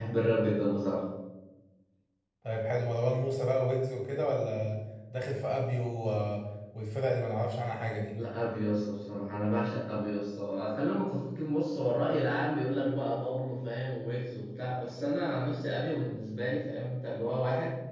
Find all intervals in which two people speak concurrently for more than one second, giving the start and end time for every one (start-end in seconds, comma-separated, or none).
none